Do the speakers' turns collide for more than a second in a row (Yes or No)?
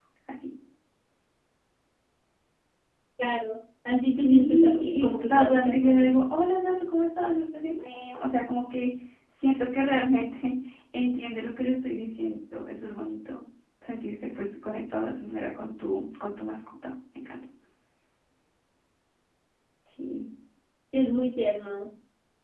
Yes